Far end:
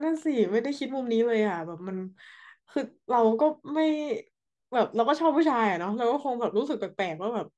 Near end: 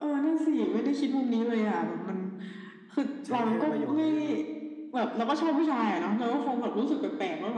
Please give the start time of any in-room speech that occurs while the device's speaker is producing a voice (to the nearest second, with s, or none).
3 s